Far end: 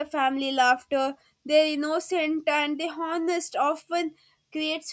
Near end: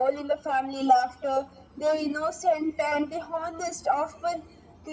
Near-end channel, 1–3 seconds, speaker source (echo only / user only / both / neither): echo only